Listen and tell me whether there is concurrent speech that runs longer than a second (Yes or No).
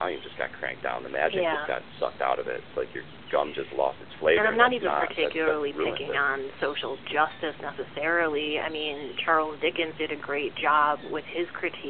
Yes